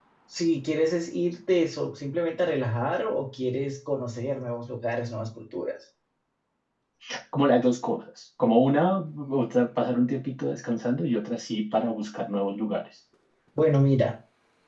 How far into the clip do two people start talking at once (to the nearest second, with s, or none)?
none